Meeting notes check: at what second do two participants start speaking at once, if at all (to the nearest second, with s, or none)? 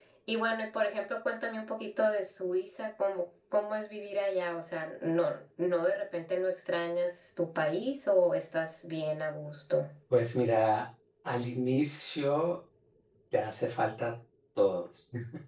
none